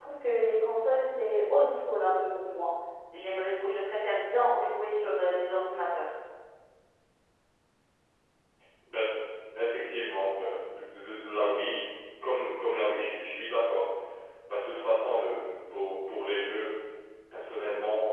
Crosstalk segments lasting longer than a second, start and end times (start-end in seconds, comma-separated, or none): none